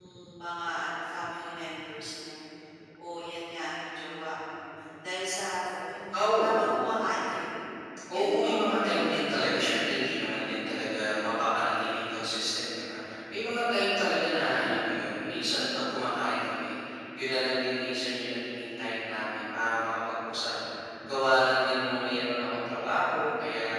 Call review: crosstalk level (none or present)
present